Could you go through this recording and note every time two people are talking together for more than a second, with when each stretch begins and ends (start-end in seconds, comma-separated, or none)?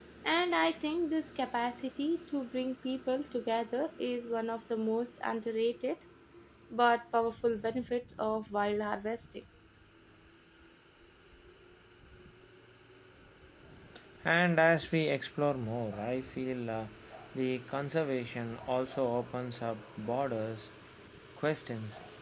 none